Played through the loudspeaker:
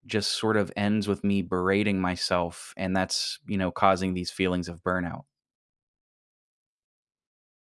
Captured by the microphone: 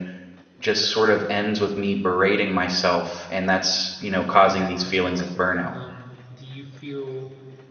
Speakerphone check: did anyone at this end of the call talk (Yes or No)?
Yes